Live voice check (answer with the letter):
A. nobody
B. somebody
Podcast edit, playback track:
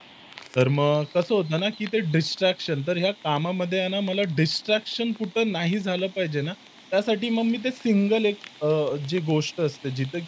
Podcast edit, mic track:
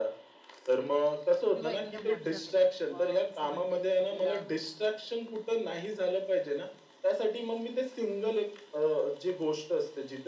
B